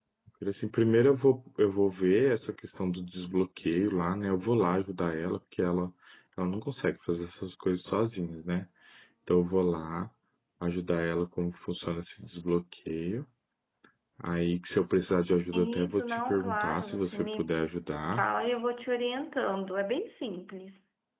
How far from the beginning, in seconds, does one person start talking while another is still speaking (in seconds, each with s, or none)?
15.5 s